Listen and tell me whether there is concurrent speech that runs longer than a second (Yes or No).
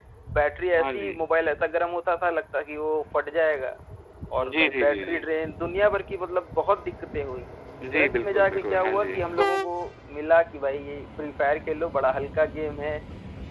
Yes